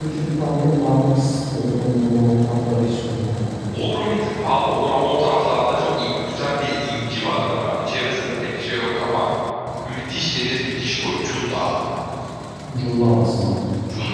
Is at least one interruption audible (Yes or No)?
No